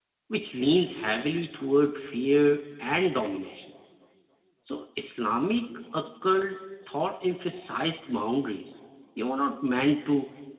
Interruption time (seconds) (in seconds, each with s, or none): none